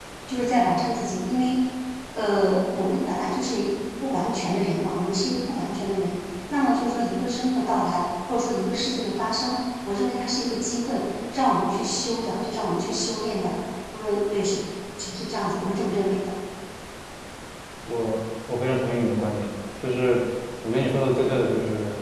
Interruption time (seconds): none

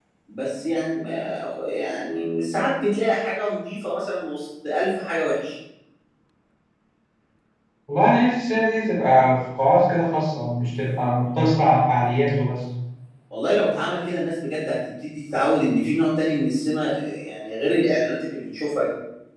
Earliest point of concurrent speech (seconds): none

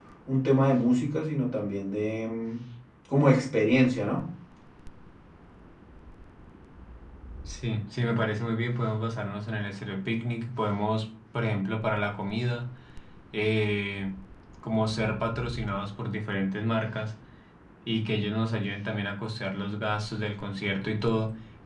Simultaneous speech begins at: none

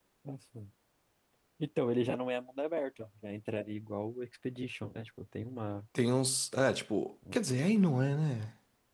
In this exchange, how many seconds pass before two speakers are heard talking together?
none

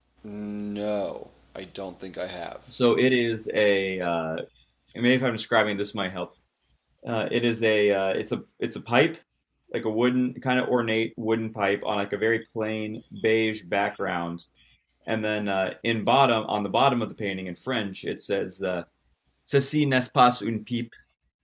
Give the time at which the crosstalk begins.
none

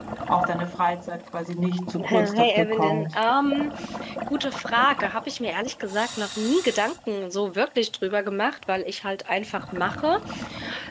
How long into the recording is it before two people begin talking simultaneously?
2.0 s

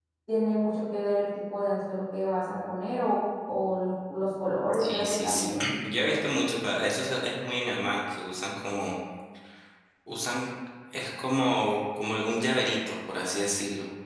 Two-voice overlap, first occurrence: 4.7 s

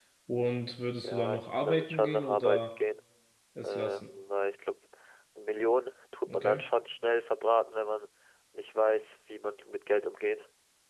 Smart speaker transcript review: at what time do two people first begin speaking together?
1.0 s

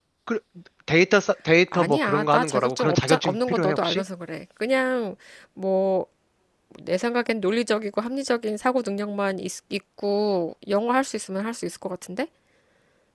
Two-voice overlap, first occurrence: 1.7 s

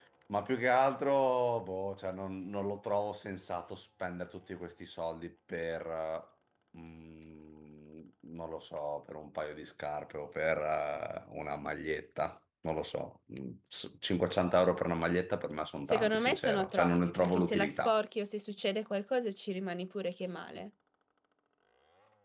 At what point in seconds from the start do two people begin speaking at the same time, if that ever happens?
15.9 s

